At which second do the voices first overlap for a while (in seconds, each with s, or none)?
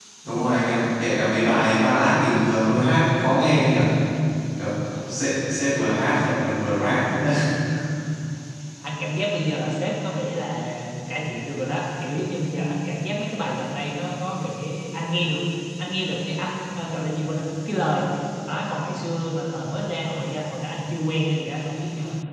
none